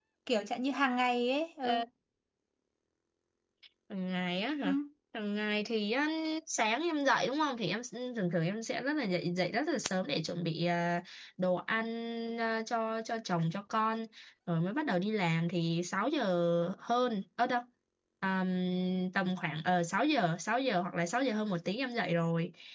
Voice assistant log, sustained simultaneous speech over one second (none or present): none